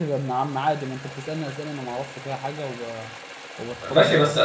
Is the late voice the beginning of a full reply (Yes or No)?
Yes